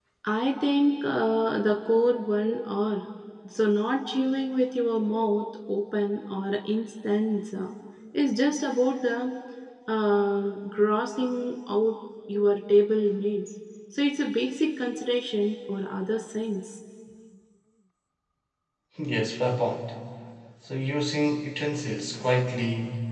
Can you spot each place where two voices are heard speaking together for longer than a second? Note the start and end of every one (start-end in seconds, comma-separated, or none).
none